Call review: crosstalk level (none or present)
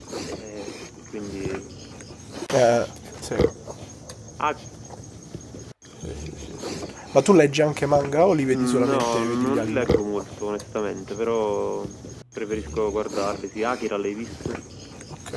present